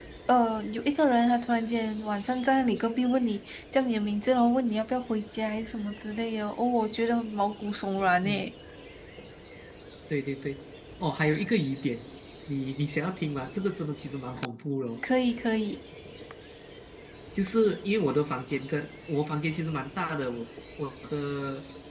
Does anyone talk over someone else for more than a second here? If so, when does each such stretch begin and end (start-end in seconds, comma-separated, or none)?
none